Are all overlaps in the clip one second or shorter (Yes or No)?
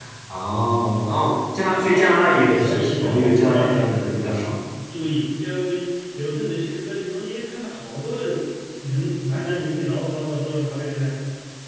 No